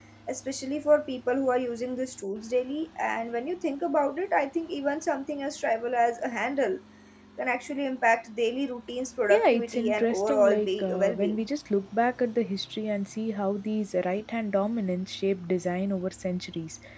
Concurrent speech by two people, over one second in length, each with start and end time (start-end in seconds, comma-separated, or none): 9.3-11.4